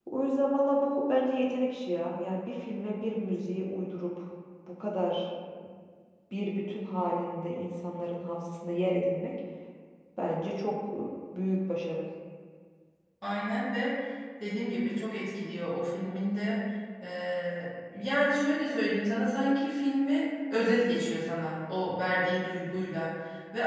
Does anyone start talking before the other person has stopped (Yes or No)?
No